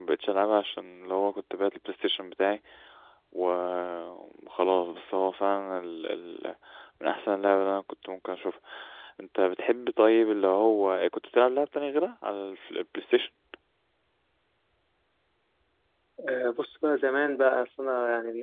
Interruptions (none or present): none